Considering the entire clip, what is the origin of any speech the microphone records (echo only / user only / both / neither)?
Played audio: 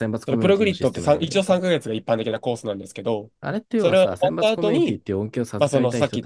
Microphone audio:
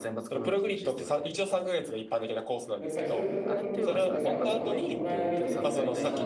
both